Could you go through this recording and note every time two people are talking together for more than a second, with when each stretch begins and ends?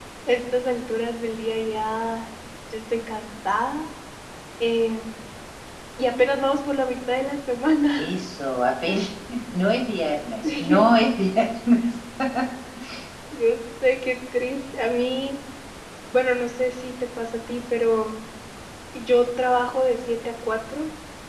none

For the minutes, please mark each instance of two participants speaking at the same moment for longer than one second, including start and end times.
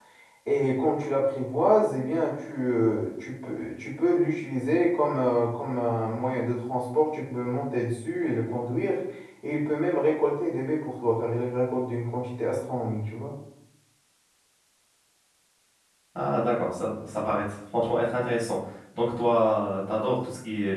none

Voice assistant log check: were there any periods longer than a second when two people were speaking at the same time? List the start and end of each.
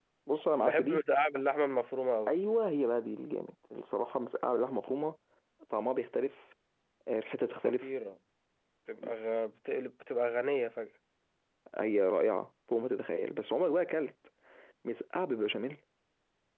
none

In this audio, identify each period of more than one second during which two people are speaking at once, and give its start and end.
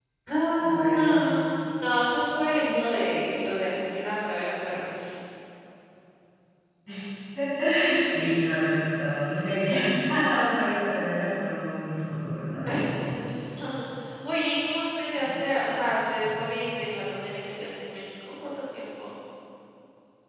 none

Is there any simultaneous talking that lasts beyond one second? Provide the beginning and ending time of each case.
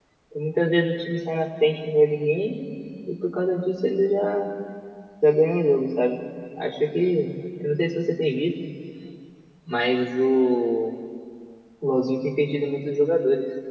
none

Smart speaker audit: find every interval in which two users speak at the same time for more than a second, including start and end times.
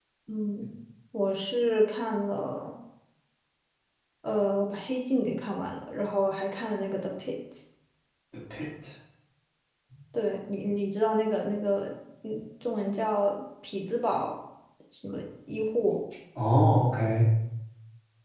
none

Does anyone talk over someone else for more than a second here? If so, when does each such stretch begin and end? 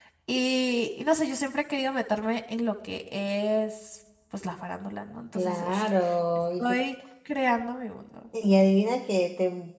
none

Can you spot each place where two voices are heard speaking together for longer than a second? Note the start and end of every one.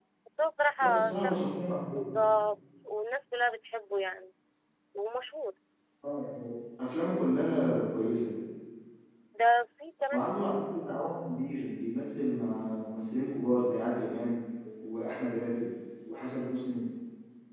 none

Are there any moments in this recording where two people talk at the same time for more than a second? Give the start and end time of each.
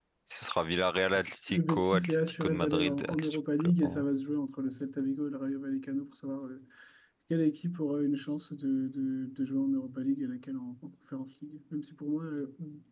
1.5-4.0

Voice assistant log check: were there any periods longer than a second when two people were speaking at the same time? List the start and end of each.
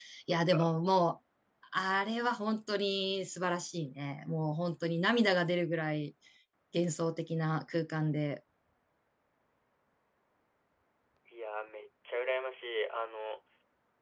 none

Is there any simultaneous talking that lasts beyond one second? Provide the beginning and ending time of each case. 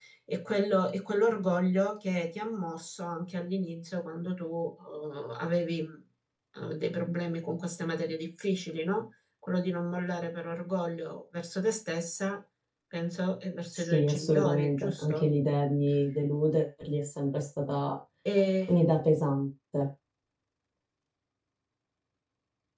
13.7-15.3

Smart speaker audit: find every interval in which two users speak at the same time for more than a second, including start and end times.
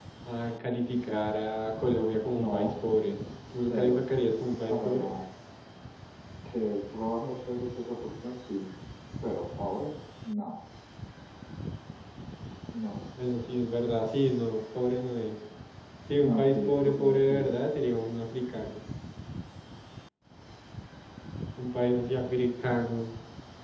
16.2-17.6

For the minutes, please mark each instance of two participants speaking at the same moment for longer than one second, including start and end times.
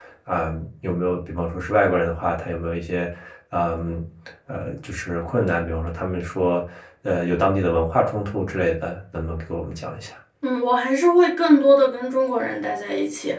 none

